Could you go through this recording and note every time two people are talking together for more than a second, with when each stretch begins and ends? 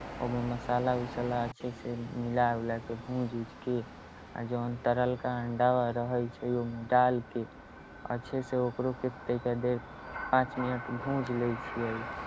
none

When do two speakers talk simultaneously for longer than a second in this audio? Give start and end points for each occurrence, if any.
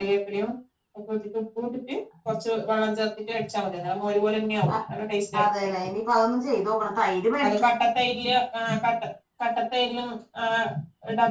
none

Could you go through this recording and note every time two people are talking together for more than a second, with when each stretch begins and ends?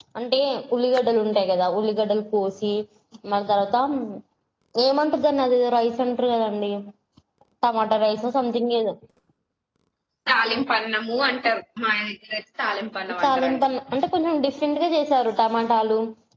none

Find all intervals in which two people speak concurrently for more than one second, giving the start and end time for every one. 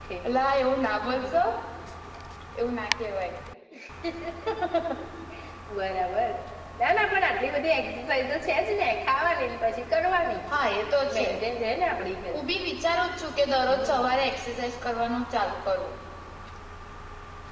none

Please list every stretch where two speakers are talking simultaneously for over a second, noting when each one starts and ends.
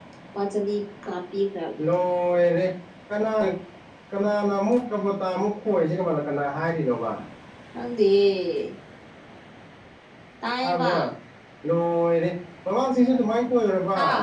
none

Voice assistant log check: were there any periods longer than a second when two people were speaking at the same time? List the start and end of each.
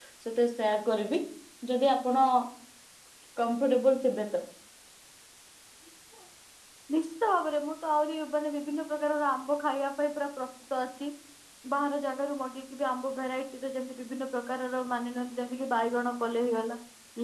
none

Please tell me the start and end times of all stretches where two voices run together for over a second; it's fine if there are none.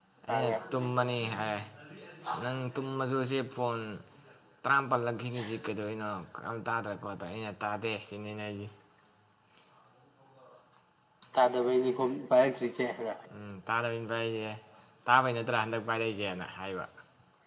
none

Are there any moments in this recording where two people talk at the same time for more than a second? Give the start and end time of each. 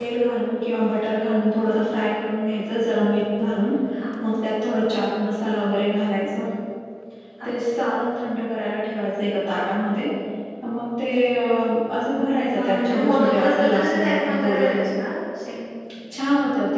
12.6-14.6

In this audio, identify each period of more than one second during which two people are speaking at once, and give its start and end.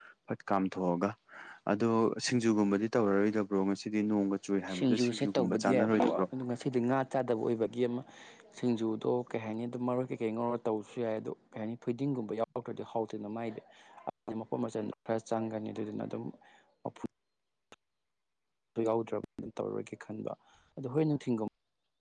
4.7-6.2

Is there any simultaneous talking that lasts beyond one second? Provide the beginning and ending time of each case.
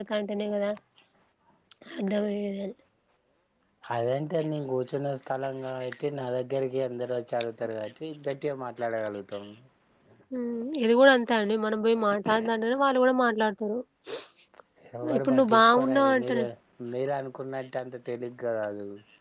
15.2-16.4

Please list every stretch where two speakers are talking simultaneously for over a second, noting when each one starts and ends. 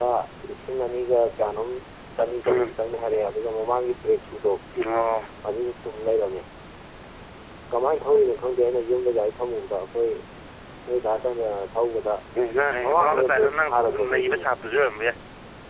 12.9-14.4

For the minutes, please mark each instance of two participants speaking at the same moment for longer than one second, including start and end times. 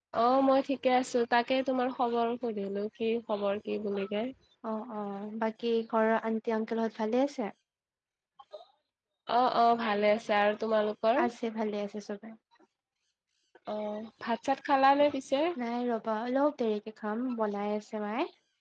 none

